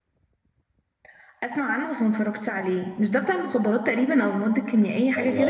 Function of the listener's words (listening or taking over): taking over